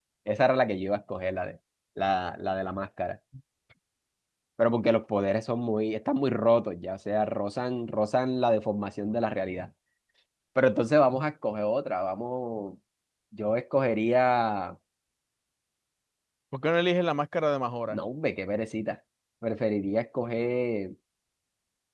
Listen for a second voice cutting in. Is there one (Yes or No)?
No